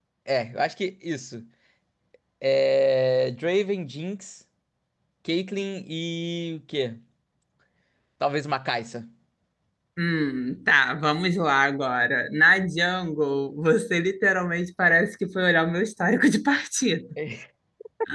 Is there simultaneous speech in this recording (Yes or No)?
No